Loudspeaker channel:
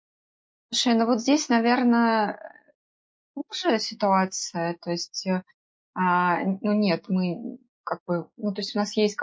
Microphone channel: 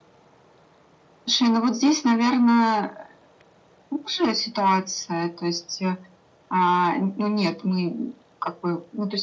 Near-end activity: none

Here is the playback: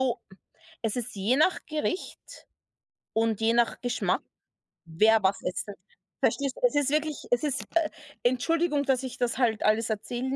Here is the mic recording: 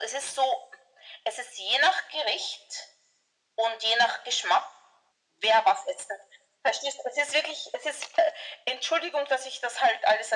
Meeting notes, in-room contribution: none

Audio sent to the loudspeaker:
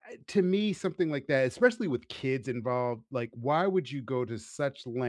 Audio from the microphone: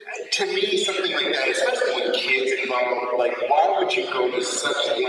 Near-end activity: none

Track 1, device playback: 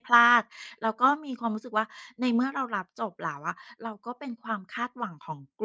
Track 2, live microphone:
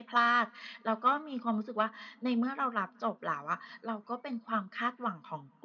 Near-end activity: none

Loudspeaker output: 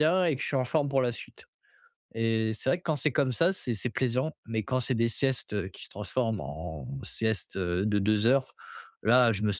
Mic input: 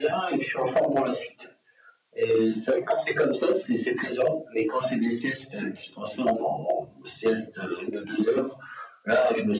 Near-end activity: none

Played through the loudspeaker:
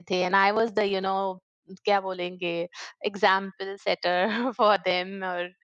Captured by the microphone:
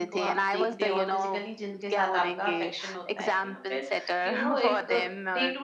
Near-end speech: present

